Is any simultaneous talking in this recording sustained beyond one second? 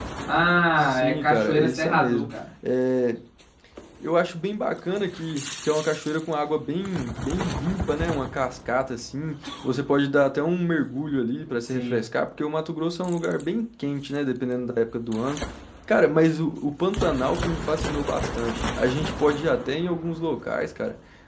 Yes, from 0.8 s

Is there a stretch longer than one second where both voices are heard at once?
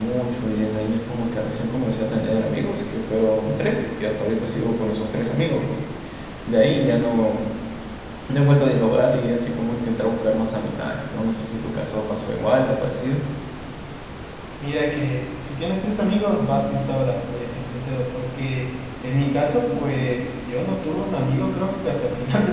No

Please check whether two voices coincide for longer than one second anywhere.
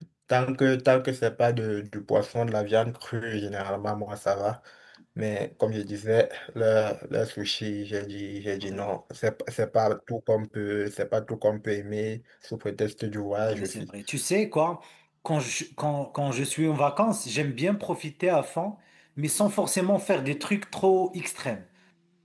No

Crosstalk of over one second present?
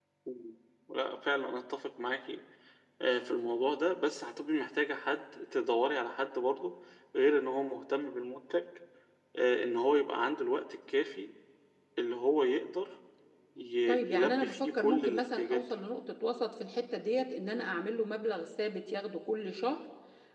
Yes, from 13.9 s

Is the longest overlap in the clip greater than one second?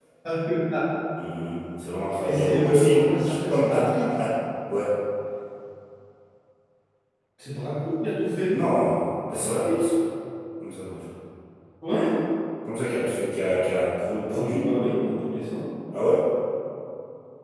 Yes, from 2.2 s

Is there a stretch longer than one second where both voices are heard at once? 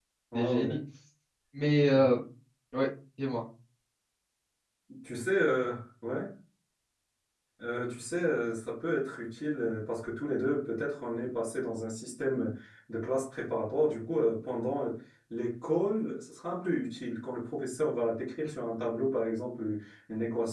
No

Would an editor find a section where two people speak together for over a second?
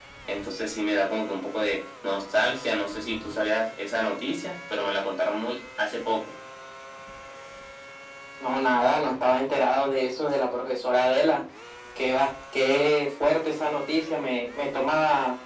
No

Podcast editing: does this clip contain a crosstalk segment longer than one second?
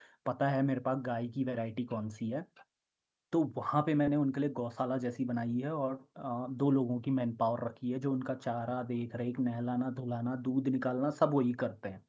No

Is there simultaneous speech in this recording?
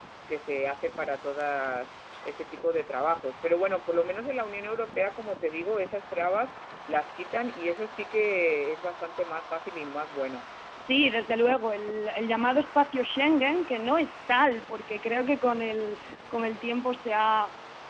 No

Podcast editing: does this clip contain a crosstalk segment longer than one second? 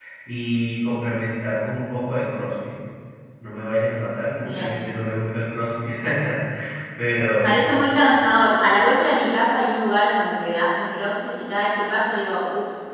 No

